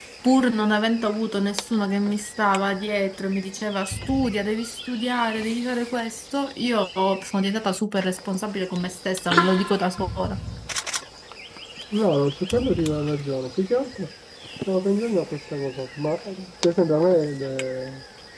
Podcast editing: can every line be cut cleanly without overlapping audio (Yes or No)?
Yes